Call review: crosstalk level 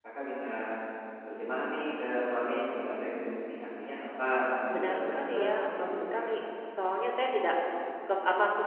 present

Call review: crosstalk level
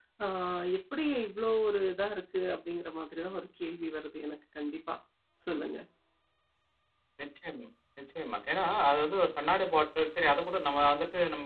none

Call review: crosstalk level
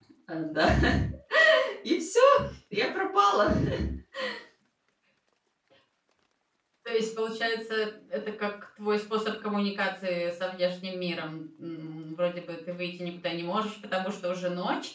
none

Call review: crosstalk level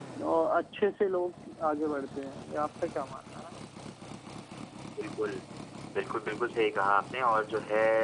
none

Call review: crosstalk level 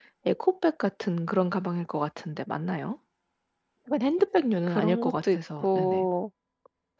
present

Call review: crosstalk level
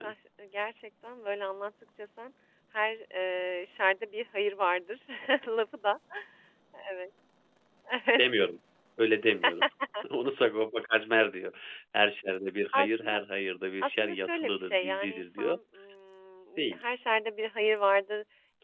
present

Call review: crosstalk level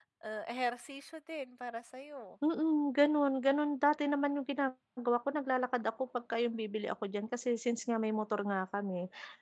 none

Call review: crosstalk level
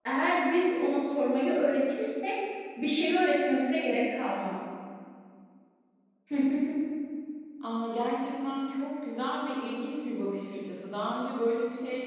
none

